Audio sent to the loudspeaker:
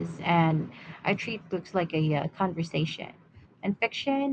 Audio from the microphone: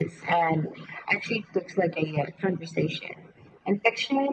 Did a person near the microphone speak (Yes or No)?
No